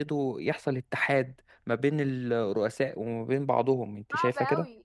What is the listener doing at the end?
taking over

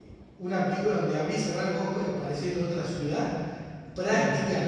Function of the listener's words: listening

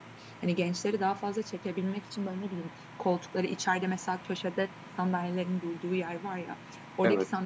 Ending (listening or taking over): listening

